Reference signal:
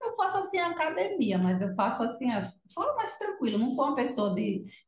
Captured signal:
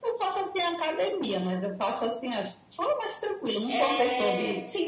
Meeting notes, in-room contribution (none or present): present